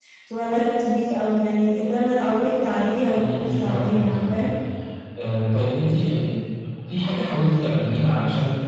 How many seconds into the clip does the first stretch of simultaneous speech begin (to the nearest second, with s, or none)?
3 s